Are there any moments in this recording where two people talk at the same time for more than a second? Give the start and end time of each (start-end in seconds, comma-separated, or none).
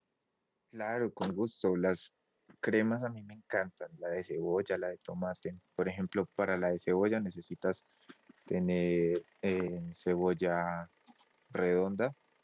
none